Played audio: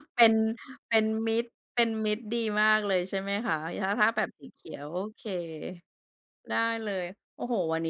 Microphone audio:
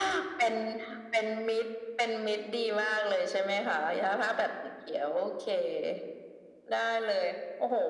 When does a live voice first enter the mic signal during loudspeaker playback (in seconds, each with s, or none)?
none